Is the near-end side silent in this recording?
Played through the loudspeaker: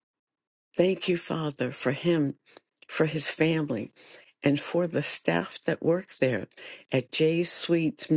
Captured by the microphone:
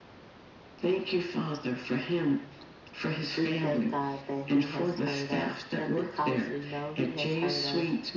No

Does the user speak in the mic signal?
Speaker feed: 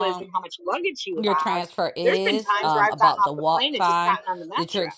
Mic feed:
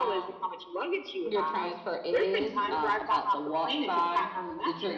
No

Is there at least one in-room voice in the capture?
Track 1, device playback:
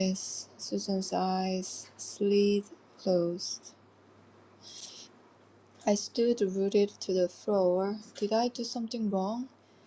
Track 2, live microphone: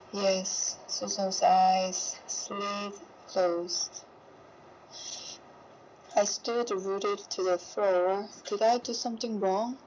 No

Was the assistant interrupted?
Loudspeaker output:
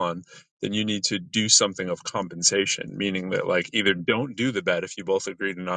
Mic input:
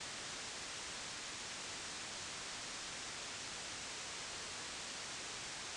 No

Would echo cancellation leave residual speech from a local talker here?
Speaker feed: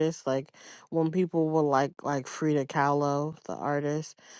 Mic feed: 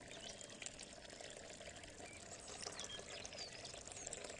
No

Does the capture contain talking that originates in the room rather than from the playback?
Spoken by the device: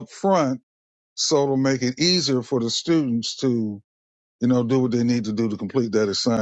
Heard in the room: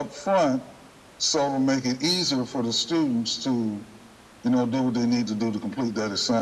No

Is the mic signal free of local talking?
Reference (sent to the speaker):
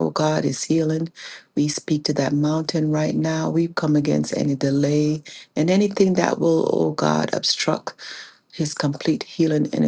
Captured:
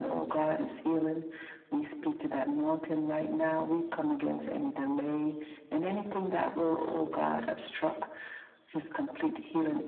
Yes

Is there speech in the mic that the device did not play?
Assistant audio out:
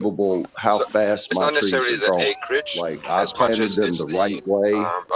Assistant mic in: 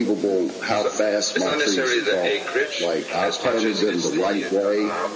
Yes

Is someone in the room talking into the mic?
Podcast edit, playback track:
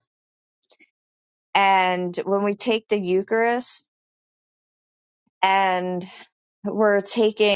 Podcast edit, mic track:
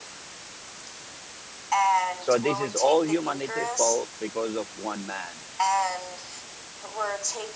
Yes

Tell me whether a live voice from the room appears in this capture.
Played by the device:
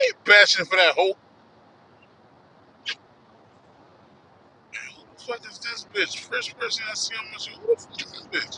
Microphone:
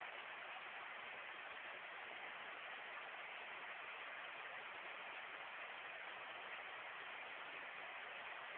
No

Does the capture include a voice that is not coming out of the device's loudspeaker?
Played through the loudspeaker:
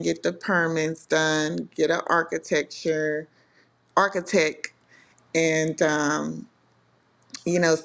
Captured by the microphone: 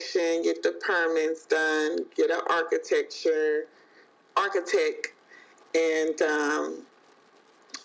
No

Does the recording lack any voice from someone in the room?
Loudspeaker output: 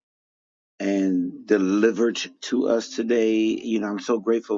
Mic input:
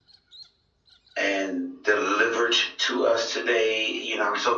Yes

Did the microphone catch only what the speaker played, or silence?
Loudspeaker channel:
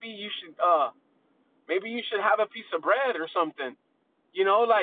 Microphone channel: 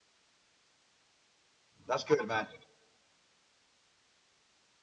No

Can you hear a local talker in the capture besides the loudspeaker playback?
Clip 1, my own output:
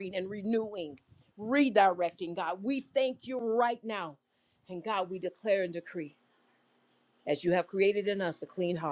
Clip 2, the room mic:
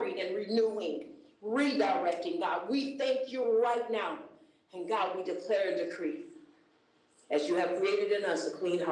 No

